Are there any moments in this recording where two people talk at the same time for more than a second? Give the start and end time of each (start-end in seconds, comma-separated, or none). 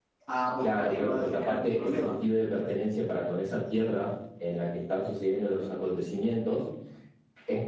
0.6-2.1